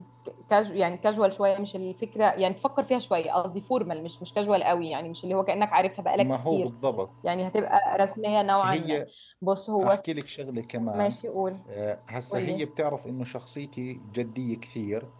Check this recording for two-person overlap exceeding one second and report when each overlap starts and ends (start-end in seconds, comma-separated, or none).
none